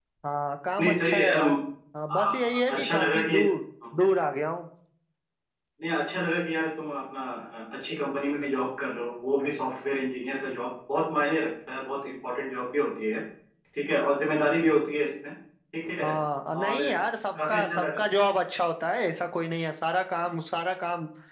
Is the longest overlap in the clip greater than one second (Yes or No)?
Yes